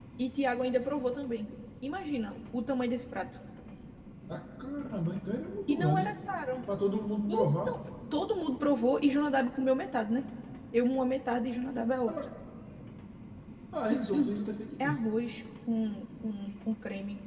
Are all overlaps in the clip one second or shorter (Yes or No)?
Yes